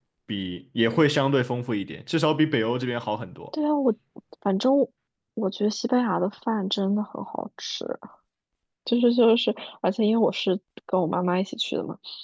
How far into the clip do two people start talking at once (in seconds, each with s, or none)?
none